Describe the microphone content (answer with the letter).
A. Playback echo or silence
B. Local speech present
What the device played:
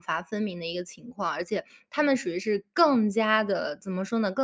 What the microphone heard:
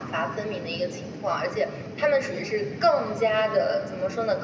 A